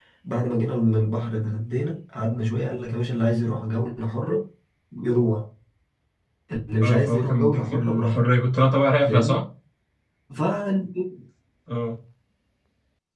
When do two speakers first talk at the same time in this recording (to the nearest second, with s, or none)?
7 s